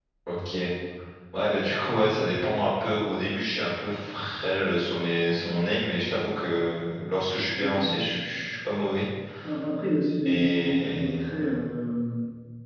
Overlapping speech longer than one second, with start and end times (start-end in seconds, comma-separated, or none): 10.2-11.5